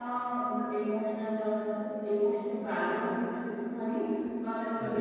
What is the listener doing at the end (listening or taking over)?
listening